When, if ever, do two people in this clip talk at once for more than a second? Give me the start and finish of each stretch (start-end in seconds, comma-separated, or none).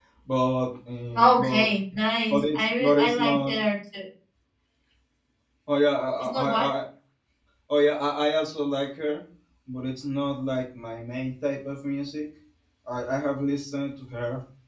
2.3-3.5